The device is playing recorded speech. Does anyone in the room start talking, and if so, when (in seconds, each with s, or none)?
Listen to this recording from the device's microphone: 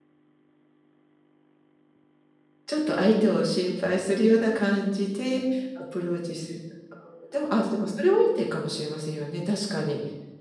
2.7 s